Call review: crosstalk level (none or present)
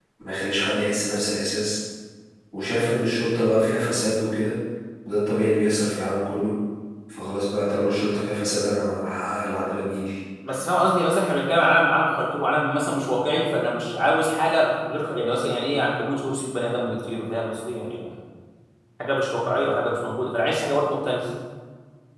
none